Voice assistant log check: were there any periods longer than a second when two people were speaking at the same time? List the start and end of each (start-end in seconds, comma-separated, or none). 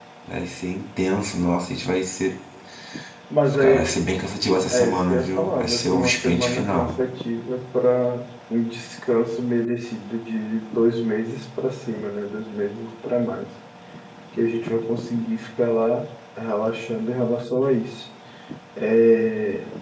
4.7-7.0